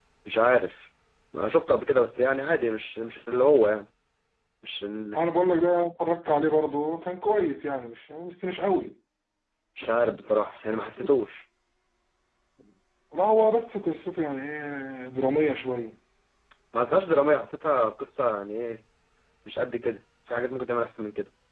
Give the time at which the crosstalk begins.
none

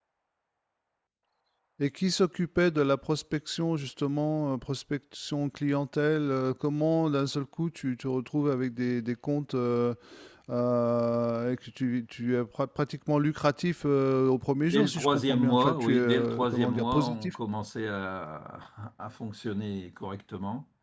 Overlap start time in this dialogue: 14.7 s

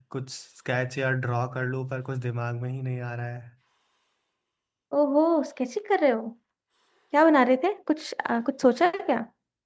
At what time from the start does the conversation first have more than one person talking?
none

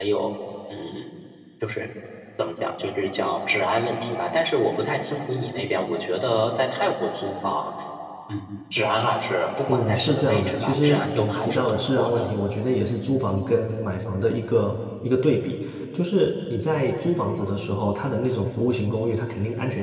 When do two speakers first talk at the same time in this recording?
9.7 s

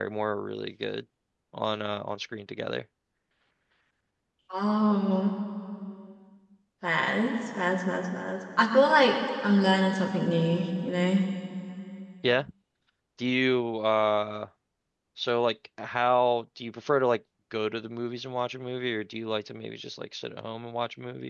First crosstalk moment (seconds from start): none

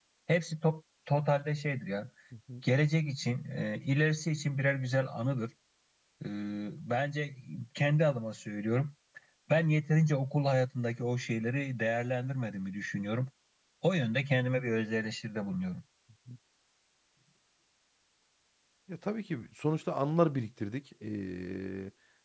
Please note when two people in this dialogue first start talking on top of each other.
none

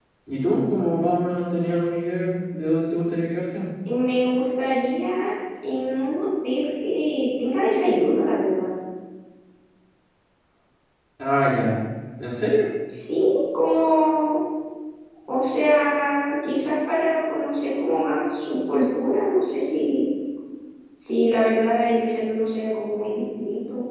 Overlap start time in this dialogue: none

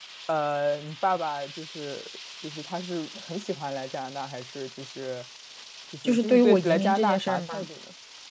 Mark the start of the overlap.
6.0 s

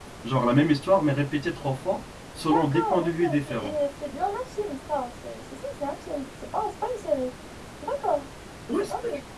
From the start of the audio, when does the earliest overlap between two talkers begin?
2.5 s

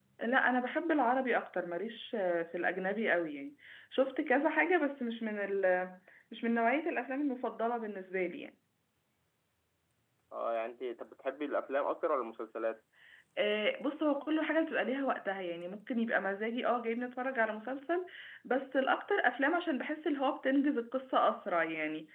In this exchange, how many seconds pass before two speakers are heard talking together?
none

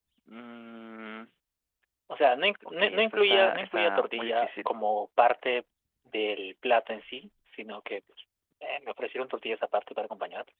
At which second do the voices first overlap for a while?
2.8 s

